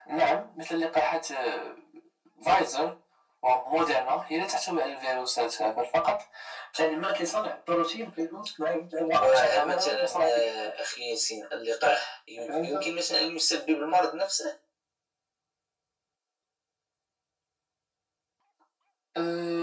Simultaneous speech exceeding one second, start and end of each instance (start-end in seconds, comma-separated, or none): 9.1-10.7